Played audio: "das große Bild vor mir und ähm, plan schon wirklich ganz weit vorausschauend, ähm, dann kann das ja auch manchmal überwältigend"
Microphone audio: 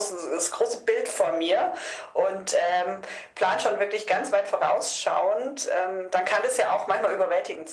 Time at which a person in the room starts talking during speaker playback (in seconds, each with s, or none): none